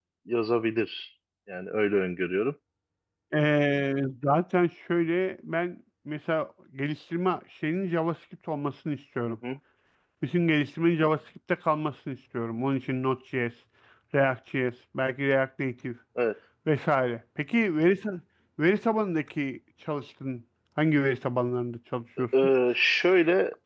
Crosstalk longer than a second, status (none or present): none